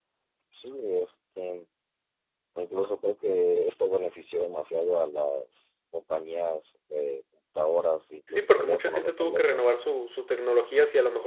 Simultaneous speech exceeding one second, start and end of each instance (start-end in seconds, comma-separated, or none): 8.3-9.7